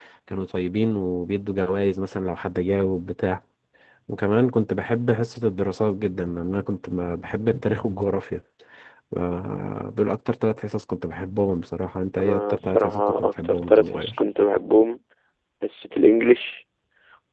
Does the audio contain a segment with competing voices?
Yes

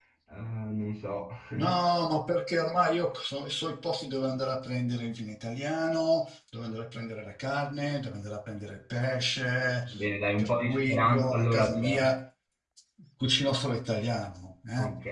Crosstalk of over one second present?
Yes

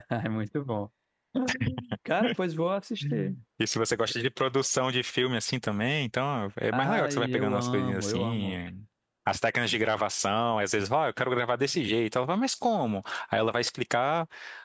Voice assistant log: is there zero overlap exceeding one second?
No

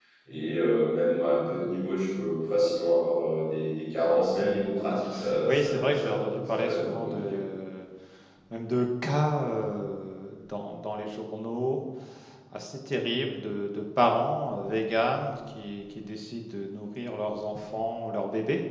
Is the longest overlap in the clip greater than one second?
Yes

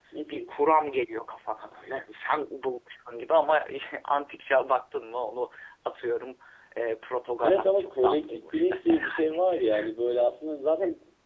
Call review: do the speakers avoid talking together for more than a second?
No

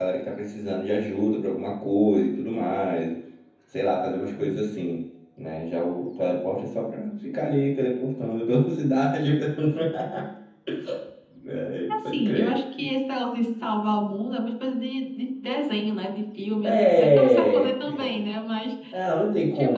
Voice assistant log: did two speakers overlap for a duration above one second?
Yes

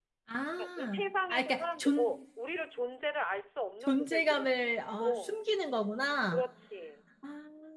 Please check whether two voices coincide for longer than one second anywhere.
Yes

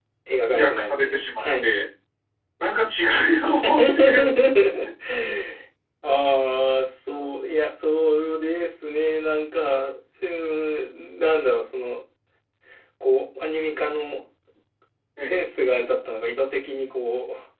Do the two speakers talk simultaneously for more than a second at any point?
Yes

